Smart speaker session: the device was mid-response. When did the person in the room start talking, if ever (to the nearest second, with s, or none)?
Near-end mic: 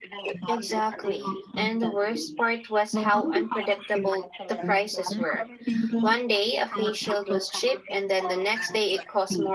0 s